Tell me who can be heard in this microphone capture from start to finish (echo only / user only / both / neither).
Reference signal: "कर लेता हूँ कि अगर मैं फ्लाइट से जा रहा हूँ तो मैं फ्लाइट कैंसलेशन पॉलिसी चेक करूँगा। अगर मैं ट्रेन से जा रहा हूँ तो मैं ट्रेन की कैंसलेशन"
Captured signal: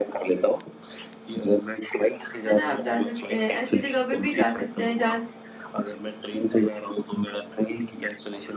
both